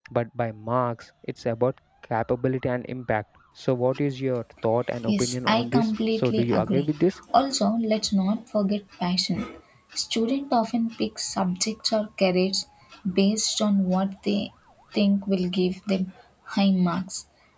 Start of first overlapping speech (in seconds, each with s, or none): 5.0 s